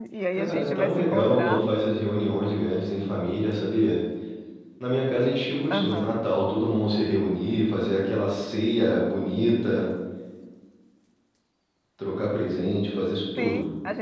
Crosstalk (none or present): present